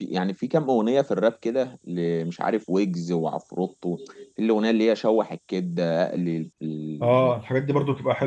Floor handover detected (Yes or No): Yes